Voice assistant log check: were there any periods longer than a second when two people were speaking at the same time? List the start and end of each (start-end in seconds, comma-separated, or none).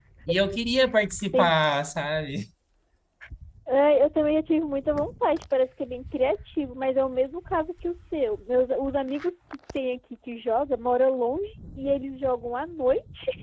none